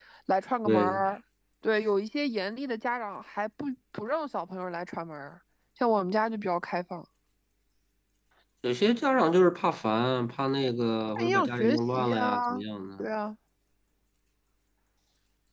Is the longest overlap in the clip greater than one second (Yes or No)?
Yes